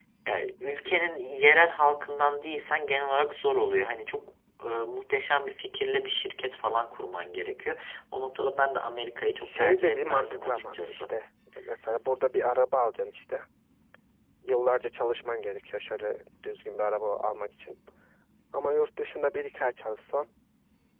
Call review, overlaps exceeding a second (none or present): present